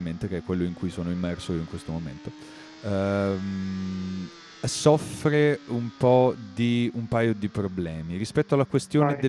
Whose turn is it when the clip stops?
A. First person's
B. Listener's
A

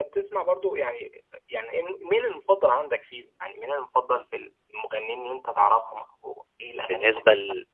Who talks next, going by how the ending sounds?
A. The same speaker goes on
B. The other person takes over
B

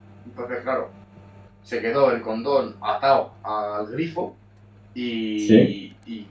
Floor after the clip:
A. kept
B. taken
A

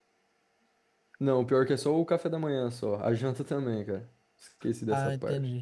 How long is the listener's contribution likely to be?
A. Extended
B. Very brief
A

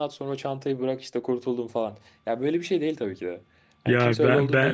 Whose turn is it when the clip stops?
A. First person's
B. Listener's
B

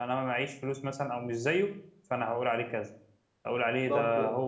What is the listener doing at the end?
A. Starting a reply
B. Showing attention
B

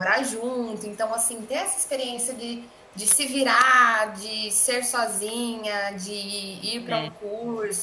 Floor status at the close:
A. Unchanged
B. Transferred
A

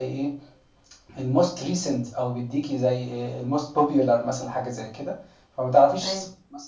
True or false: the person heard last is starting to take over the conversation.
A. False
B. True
A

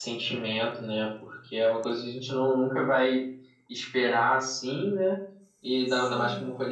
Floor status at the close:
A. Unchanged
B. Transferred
A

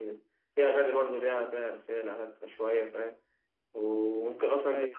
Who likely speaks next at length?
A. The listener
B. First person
B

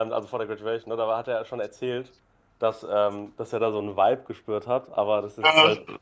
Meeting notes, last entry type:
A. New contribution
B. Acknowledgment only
B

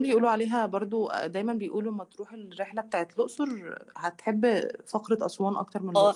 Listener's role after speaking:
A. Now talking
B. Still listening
A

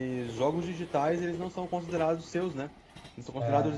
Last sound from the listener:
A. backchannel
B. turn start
A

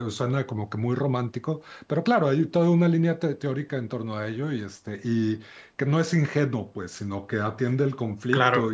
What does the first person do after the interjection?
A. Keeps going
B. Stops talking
A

